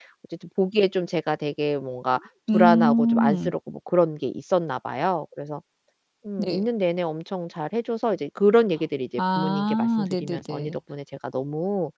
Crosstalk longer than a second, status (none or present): present